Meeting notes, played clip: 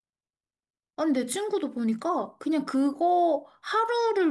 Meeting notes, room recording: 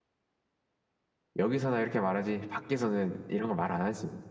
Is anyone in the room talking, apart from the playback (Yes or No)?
Yes